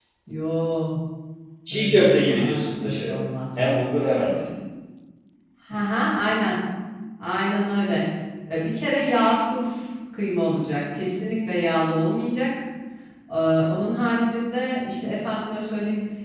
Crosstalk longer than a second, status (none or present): present